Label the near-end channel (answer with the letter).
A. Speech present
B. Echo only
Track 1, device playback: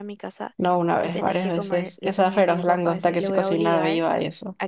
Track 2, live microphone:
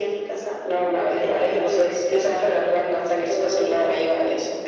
B